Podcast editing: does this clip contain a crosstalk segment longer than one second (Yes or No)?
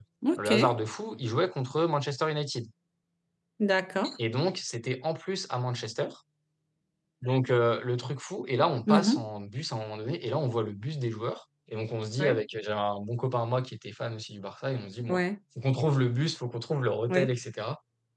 No